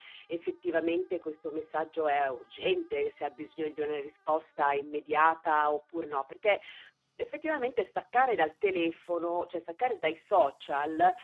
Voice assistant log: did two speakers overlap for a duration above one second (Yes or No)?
No